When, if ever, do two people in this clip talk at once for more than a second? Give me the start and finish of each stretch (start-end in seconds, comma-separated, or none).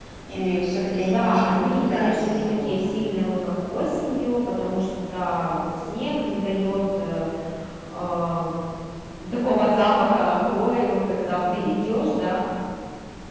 1.0-2.9